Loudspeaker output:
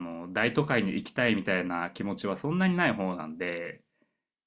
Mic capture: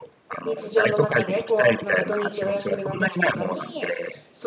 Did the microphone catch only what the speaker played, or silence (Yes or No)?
No